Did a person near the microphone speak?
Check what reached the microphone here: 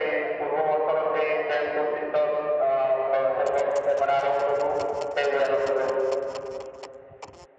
No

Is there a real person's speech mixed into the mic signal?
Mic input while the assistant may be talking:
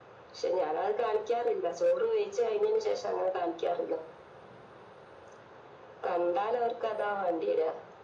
No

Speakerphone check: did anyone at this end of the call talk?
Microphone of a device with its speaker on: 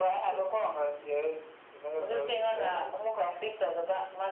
No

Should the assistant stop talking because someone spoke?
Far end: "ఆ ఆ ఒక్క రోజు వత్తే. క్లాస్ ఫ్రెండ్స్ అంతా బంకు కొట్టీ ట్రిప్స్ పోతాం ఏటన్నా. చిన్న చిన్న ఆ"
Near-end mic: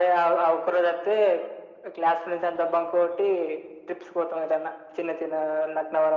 No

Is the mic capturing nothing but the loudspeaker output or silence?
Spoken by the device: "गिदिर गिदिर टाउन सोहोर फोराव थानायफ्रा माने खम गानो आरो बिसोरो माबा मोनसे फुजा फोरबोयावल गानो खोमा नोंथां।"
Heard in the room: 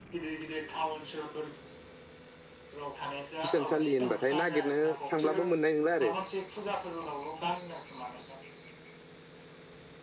No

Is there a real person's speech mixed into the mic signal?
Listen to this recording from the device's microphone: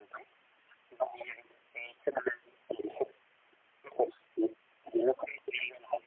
No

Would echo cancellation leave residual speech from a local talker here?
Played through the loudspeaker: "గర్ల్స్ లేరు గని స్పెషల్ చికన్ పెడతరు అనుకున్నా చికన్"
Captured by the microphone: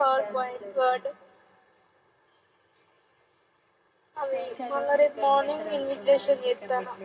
Yes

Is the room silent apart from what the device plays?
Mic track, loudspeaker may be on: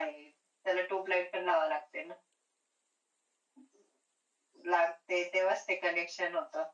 Yes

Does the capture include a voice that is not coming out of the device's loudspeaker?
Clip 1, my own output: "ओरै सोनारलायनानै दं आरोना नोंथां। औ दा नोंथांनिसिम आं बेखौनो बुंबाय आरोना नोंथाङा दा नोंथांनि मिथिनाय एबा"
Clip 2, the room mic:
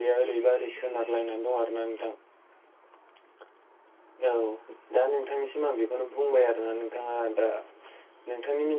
No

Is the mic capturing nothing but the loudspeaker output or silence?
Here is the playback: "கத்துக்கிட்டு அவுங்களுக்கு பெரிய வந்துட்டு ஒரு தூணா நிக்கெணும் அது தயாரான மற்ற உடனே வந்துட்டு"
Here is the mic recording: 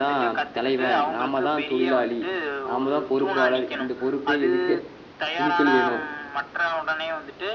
No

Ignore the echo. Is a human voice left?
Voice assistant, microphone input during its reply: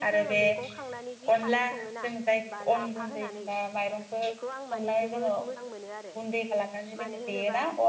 Yes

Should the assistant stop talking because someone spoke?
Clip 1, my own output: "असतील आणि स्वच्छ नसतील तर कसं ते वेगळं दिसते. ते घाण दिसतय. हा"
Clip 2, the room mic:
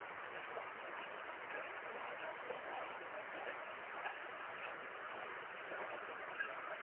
No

